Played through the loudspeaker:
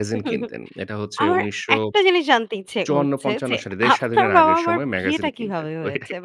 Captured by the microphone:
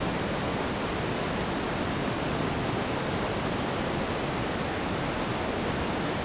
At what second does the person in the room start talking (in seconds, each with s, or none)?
none